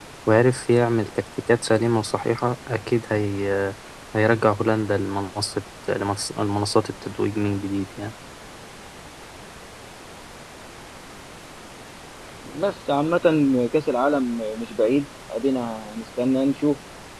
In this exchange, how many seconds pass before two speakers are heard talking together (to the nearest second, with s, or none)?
none